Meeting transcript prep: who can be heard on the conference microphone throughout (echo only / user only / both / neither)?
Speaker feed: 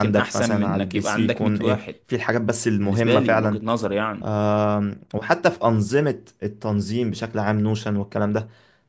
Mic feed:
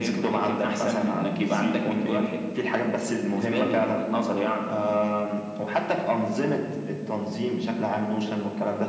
echo only